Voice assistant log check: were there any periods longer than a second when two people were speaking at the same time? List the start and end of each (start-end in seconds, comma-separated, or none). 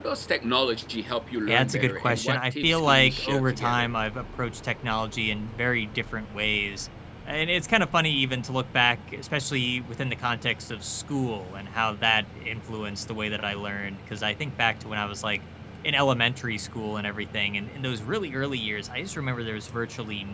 1.5-3.9